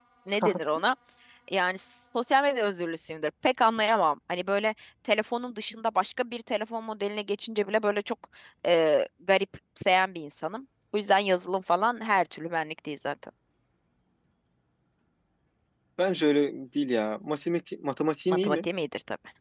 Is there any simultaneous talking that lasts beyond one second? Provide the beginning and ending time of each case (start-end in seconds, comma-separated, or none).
none